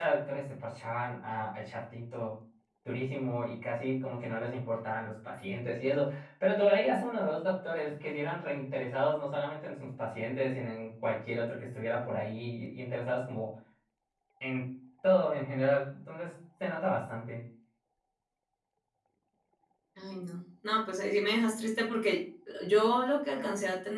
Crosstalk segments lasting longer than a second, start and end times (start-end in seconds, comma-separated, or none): none